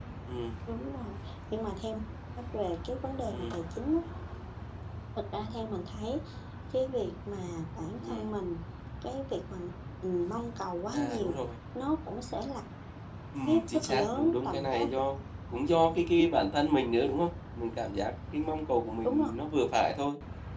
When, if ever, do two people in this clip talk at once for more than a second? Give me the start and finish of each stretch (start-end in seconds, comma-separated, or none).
13.5-15.0